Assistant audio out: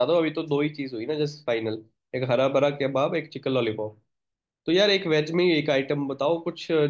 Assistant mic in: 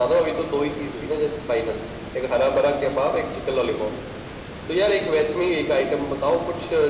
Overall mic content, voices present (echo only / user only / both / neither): echo only